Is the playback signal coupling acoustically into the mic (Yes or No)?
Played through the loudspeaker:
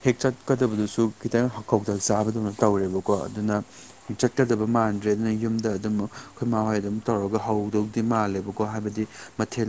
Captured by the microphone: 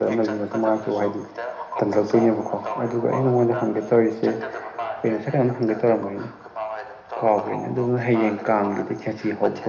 Yes